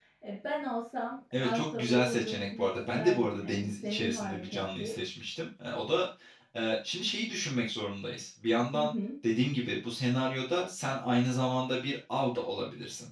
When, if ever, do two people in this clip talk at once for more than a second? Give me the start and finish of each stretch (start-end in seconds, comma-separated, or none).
1.3-5.0